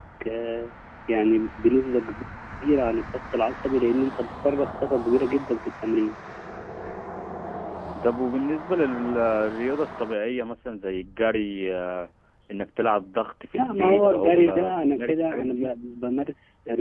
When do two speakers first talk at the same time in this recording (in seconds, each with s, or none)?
13.5 s